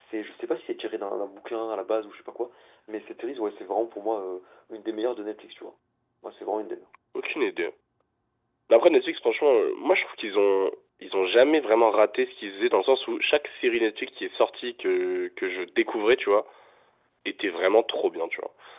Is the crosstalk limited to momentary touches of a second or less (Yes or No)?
Yes